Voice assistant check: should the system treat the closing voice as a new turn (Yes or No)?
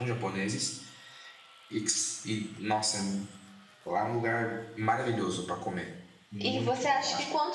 Yes